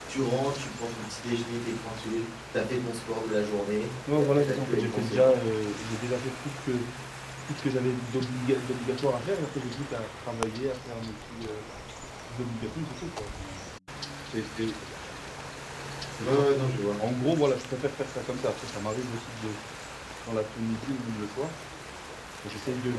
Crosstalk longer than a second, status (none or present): present